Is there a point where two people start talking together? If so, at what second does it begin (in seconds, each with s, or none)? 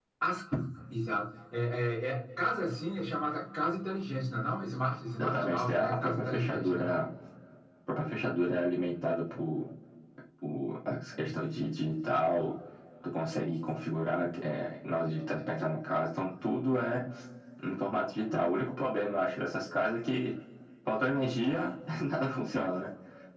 5.2 s